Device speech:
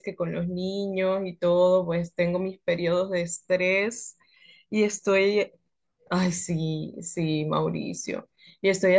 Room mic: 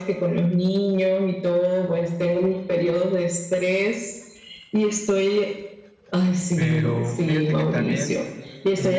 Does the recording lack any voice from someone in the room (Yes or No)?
No